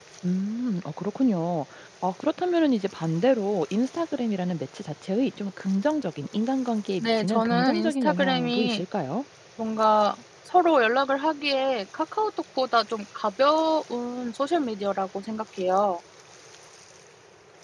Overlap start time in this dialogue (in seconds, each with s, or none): 7.0 s